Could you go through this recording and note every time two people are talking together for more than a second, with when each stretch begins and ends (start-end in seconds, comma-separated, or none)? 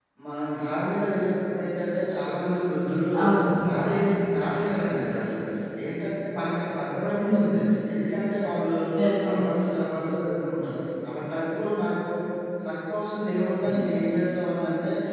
none